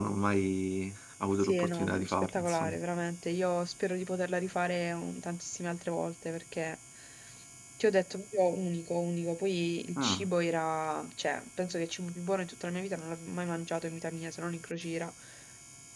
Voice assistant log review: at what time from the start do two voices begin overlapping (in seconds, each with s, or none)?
1.4 s